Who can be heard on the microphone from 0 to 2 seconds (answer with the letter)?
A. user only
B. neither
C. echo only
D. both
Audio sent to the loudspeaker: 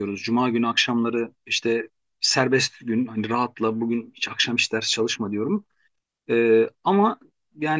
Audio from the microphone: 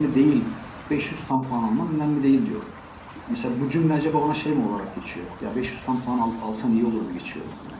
A